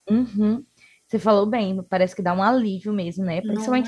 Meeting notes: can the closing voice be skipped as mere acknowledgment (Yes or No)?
Yes